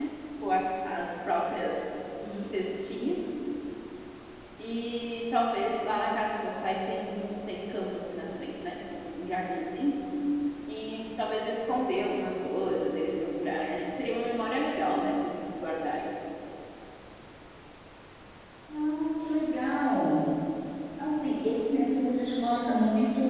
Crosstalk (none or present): none